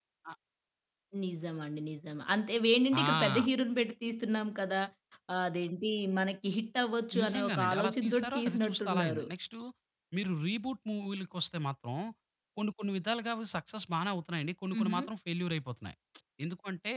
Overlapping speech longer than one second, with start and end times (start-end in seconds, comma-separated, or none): 7.2-9.2